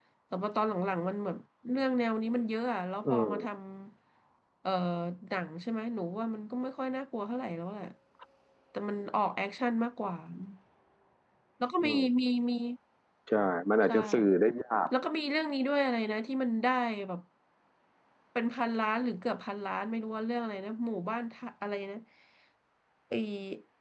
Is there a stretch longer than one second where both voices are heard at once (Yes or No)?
No